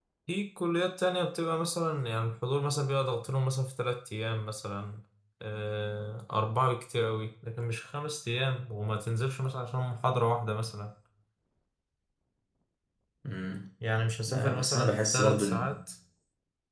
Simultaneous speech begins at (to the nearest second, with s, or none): 14 s